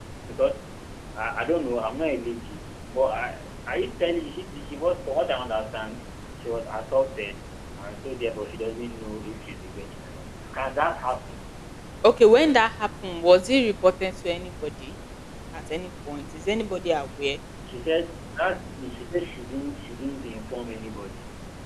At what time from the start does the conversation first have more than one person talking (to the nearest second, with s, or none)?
none